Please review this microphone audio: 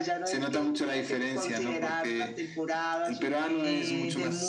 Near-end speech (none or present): present